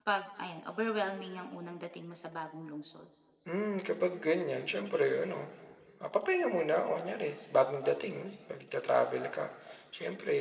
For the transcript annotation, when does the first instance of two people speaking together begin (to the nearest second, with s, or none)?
none